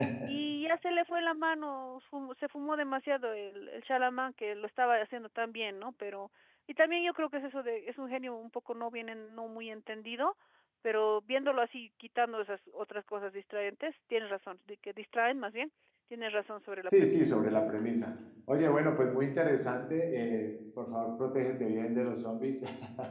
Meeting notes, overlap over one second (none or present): none